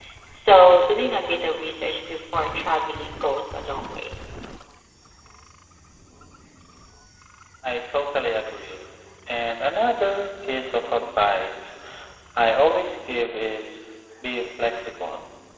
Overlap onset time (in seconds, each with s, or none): none